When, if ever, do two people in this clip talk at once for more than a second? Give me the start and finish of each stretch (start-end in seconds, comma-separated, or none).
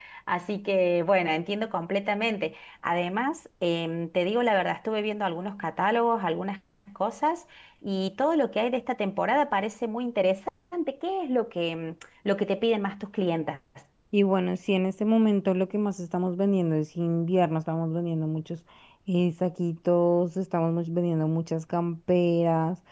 none